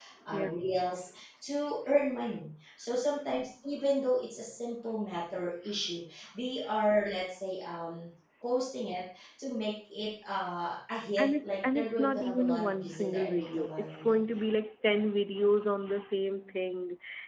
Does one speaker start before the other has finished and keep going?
Yes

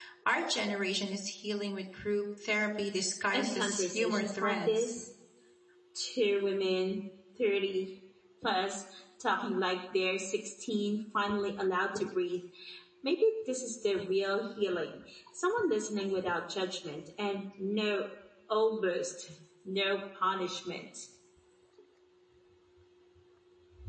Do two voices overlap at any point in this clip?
Yes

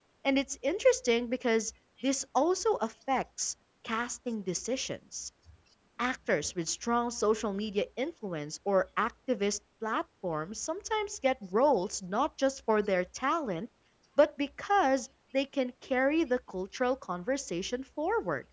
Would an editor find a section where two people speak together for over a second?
No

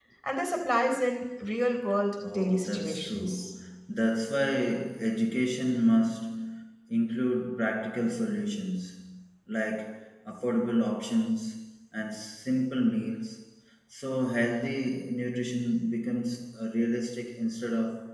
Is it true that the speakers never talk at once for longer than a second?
No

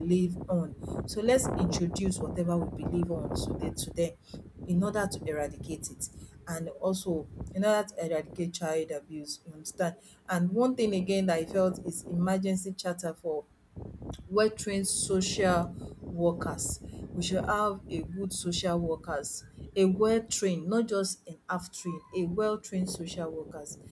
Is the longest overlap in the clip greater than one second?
No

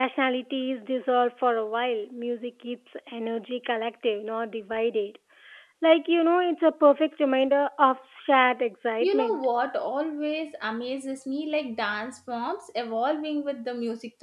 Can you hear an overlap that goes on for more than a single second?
No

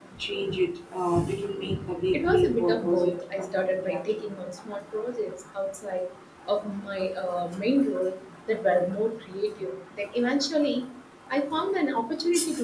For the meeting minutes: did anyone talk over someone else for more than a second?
Yes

